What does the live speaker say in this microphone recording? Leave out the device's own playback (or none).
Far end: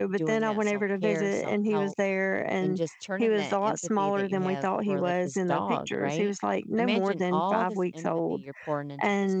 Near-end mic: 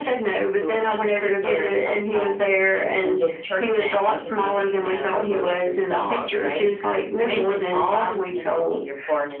none